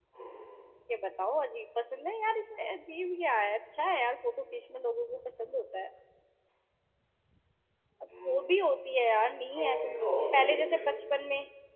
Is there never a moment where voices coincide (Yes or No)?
No